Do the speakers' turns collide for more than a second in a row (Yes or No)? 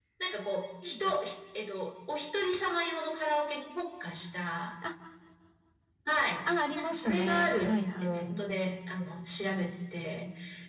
Yes